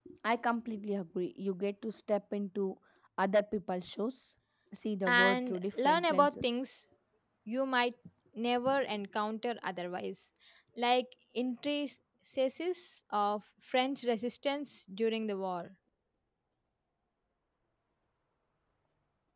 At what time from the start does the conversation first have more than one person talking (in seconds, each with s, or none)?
5.1 s